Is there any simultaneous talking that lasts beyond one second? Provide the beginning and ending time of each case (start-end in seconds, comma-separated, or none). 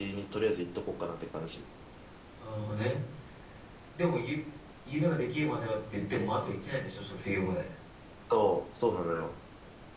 none